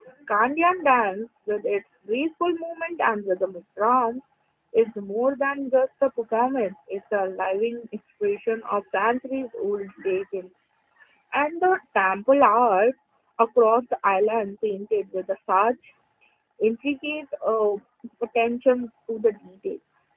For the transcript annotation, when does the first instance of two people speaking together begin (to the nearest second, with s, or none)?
none